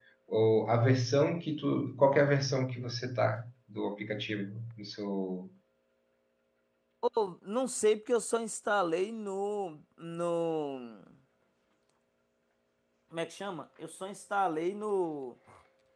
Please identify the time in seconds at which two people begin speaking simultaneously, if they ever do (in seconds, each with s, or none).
none